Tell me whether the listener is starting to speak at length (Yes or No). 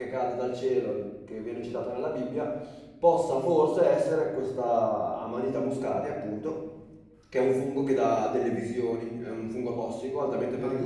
Yes